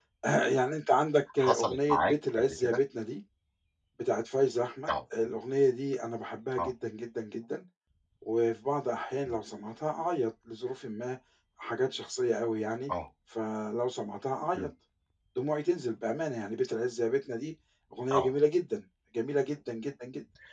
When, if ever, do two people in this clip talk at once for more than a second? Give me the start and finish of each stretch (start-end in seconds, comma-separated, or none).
1.4-2.8